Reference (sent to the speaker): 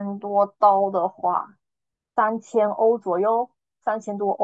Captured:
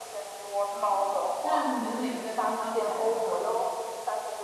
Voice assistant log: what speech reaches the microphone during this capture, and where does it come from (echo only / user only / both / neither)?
both